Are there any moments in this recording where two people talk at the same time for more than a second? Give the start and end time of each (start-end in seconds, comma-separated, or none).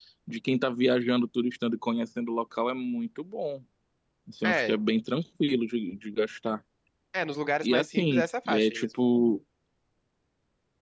7.6-8.9